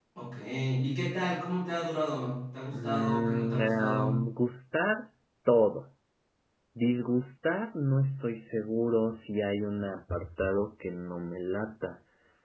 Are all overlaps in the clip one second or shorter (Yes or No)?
No